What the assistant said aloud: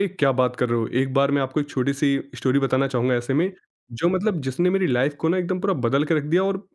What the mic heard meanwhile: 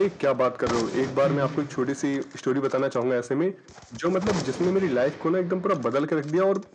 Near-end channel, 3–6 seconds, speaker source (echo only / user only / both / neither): echo only